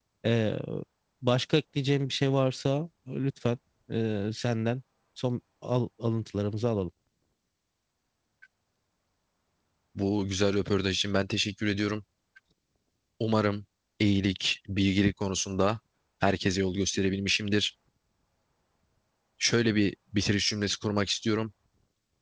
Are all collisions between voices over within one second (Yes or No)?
Yes